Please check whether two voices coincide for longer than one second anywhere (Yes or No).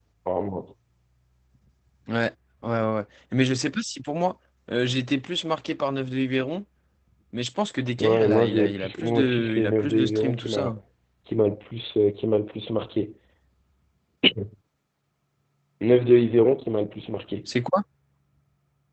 Yes